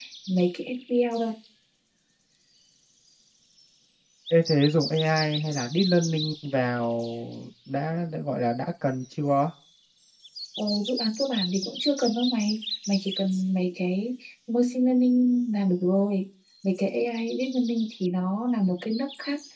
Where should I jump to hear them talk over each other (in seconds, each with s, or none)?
none